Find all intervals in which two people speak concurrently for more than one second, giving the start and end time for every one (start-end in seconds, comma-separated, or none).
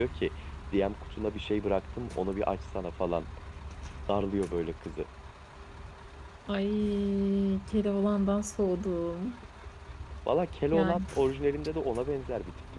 none